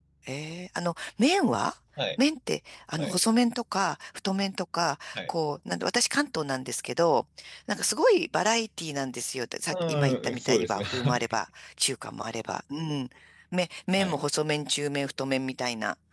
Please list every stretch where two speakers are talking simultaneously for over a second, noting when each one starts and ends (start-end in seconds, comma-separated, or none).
9.7-11.2